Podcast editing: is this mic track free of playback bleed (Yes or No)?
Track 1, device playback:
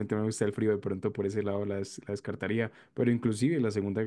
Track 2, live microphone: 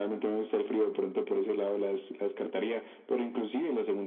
No